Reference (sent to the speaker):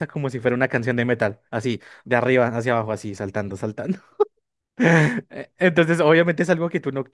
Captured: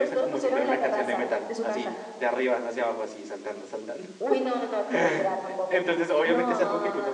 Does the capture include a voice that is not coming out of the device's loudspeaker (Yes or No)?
Yes